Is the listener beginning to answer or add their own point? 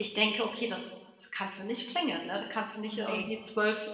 No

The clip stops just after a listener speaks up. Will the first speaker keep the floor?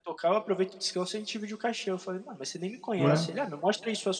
Yes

